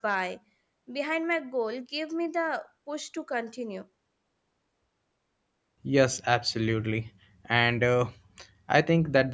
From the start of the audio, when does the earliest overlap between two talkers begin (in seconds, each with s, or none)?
none